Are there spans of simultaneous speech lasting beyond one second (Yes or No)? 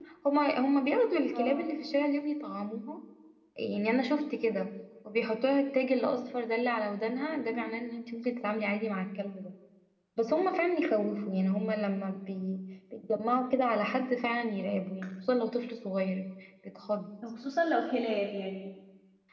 No